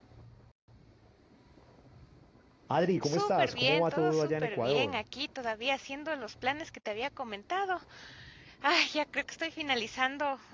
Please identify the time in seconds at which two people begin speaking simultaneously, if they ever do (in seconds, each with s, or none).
3.0 s